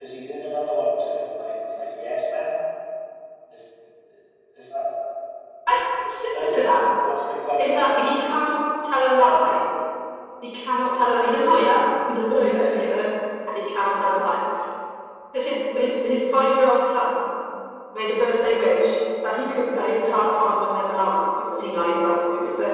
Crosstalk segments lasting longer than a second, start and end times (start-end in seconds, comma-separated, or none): none